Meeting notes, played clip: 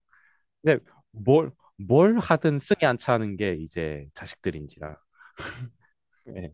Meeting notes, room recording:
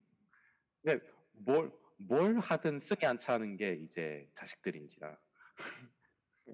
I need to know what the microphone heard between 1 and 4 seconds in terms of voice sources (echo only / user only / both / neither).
echo only